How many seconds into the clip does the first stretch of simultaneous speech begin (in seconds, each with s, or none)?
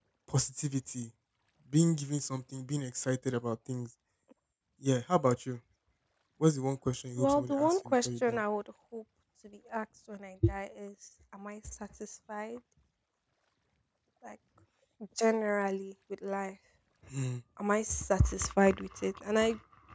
7.2 s